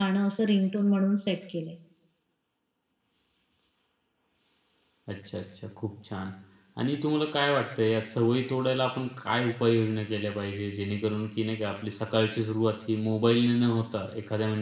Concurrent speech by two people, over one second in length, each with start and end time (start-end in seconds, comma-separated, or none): none